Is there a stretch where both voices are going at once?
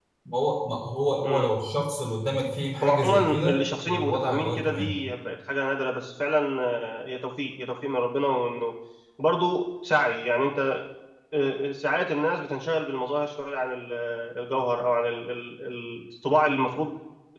Yes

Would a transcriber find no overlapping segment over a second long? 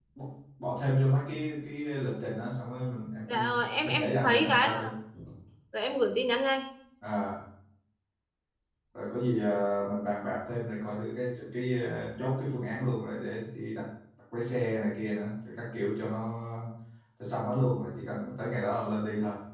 No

